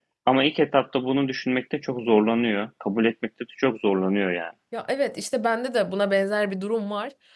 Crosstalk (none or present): none